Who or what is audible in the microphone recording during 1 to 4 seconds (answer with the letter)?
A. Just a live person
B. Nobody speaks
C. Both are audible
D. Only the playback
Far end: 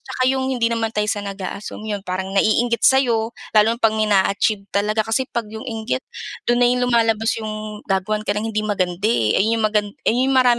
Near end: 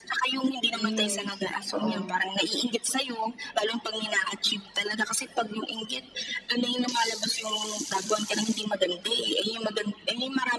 C